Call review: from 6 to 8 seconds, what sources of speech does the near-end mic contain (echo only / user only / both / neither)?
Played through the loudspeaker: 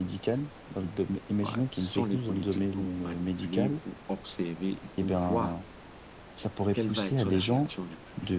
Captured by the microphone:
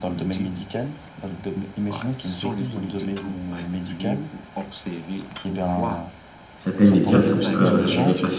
both